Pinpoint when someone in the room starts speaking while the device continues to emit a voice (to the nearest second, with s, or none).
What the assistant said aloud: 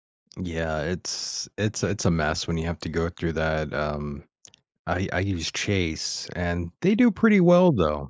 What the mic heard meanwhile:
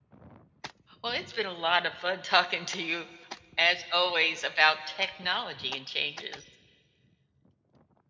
1 s